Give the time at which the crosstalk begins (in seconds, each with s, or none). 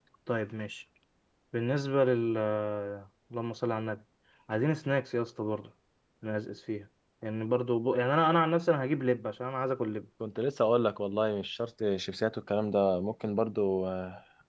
none